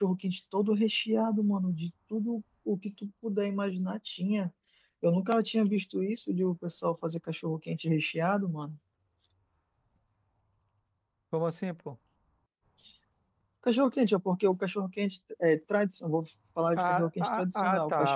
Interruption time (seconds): 16.8 s

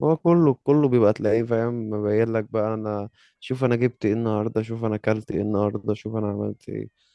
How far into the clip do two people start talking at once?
none

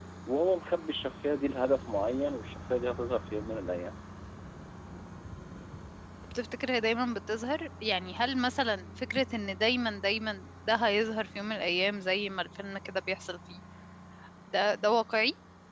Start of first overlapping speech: none

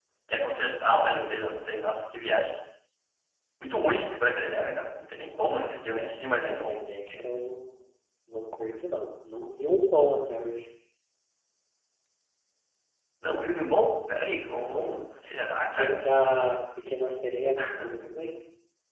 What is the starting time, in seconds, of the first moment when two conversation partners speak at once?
5.6 s

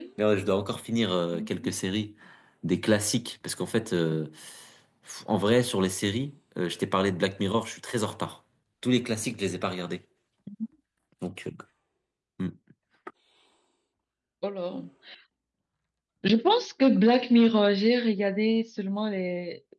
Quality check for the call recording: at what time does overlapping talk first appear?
none

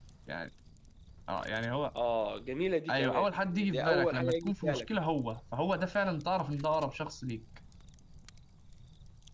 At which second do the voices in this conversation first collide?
2.9 s

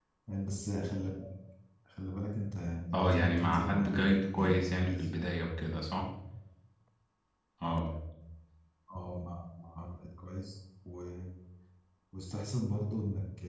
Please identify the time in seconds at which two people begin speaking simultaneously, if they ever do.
2.9 s

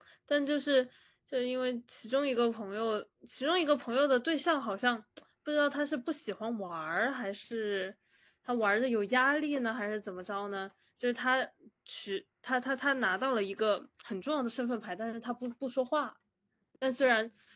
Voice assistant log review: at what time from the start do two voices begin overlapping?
none

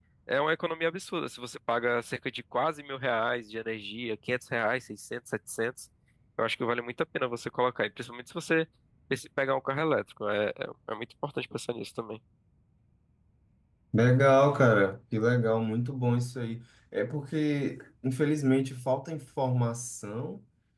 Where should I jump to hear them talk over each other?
none

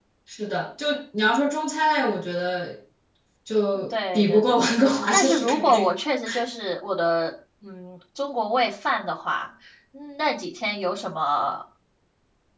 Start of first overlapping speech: 3.9 s

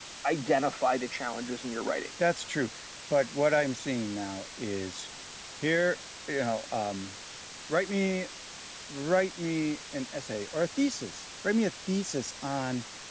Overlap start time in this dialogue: none

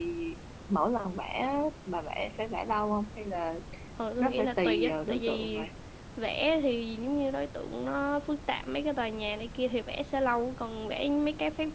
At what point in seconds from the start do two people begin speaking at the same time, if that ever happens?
4.2 s

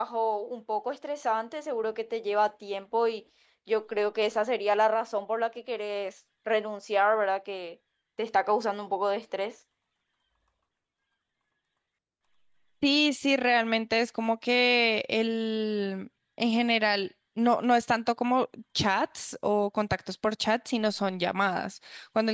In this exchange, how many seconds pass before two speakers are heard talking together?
none

